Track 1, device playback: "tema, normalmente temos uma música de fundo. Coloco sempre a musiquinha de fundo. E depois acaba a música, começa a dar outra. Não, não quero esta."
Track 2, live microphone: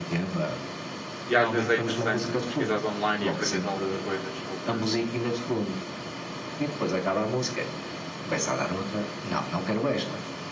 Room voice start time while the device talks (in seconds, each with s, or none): 1.3 s